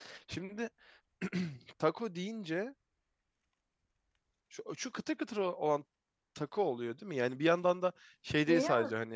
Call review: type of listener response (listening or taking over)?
listening